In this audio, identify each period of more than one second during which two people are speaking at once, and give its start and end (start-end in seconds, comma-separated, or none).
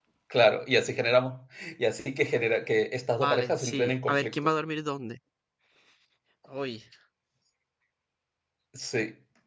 3.1-4.3